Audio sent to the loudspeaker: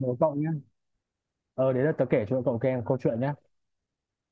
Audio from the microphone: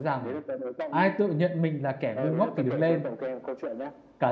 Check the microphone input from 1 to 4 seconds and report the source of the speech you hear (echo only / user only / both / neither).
both